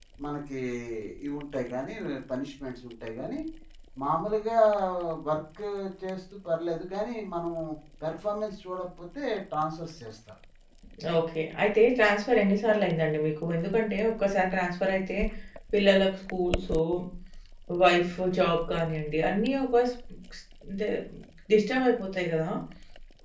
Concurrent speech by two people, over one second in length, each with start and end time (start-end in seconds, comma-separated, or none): none